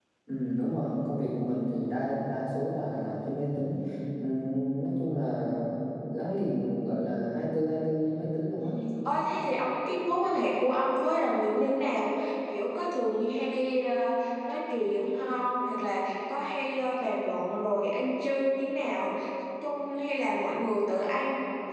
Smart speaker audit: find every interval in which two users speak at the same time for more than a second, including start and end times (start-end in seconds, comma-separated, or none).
none